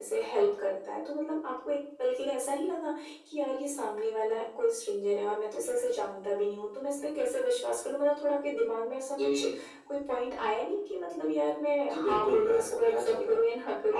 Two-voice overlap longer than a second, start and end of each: 11.9-13.3

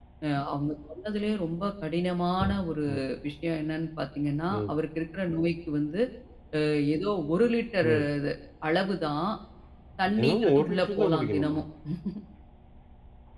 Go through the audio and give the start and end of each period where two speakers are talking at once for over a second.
10.2-11.6

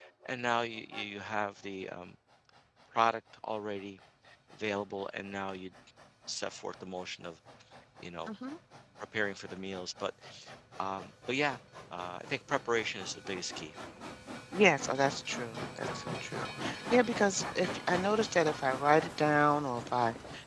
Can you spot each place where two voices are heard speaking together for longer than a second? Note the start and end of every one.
none

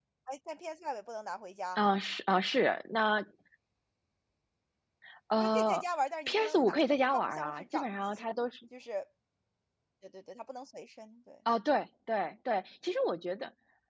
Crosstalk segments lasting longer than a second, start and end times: 6.3-8.2

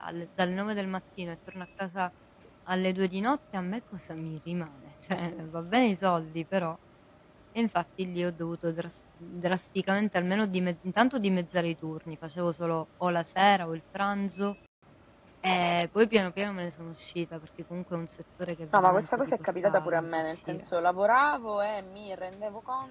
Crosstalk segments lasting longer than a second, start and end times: 18.7-20.6

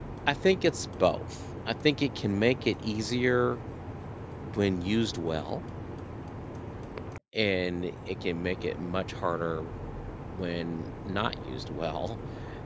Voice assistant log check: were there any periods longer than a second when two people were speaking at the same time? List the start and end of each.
none

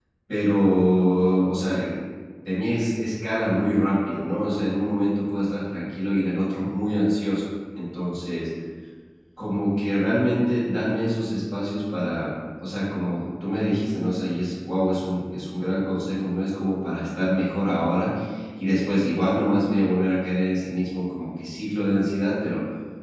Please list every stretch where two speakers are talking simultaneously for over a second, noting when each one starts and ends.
none

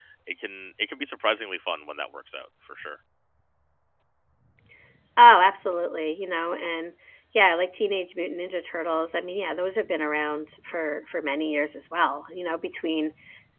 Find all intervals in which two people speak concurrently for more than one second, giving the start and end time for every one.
none

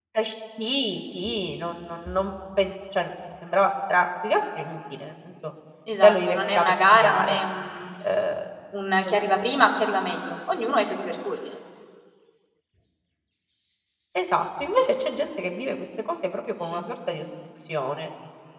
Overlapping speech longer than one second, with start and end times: 6.0-7.4

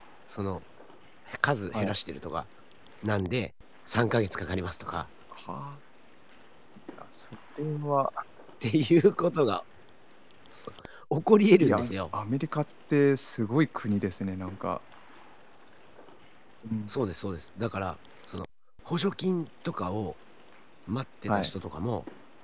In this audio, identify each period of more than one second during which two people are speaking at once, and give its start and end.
none

